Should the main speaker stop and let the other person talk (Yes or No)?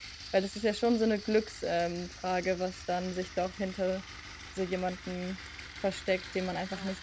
Yes